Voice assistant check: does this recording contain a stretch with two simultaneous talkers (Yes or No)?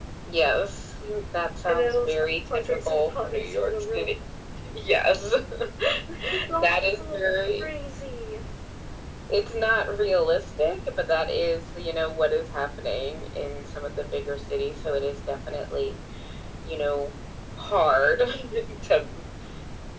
Yes